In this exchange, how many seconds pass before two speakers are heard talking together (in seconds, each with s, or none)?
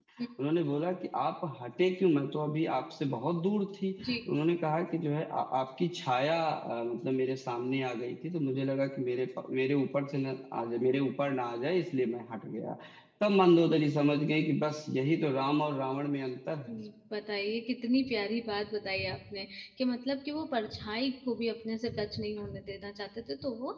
none